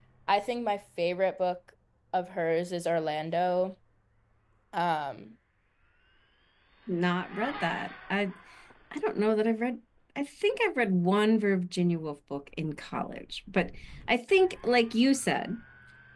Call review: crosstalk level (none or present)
none